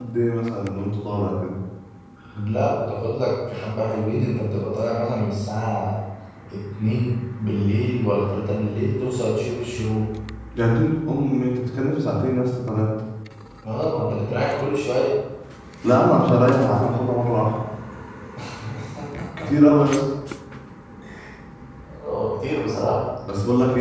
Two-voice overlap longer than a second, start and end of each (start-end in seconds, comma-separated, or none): none